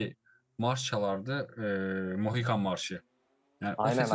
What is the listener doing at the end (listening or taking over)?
listening